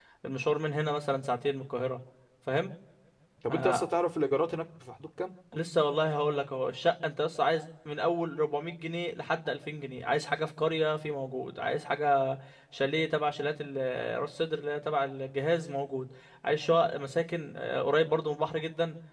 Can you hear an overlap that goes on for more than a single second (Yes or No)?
No